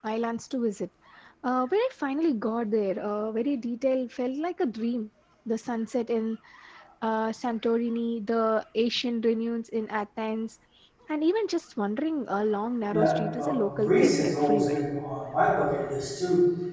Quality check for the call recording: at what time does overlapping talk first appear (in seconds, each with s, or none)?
12.9 s